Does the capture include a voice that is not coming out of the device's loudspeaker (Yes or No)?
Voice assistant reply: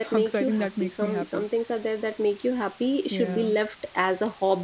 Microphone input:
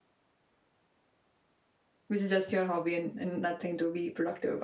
Yes